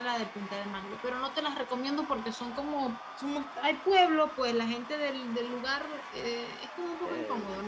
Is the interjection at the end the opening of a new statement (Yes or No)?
Yes